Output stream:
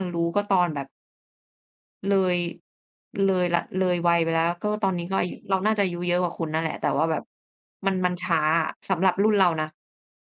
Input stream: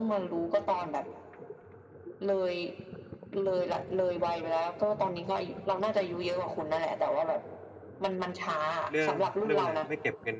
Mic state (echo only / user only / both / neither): both